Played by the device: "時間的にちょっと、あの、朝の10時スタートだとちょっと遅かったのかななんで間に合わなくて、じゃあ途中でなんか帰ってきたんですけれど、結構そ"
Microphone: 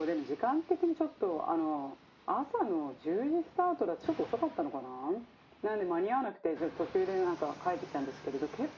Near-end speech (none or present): none